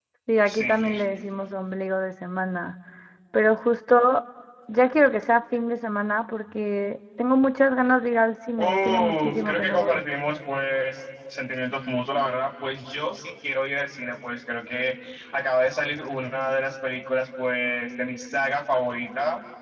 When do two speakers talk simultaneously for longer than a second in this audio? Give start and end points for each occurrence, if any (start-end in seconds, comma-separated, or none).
8.6-10.0